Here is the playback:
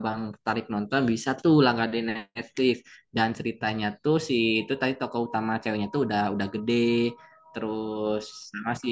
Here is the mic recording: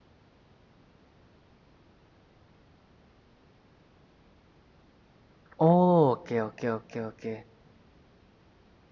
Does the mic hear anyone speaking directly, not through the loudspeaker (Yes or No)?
Yes